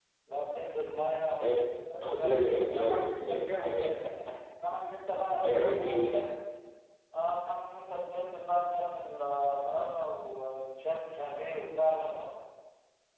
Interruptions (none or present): present